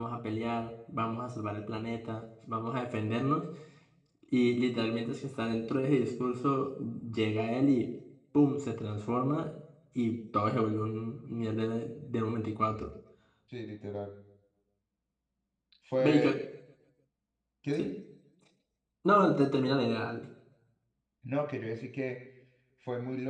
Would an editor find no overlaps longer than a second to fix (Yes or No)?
Yes